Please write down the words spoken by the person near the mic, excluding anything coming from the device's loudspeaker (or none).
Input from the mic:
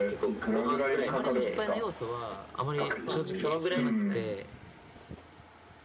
あまり心配な要素は、あまり正直少なくて、